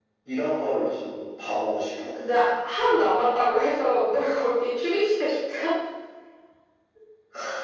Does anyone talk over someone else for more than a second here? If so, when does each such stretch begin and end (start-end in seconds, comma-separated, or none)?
none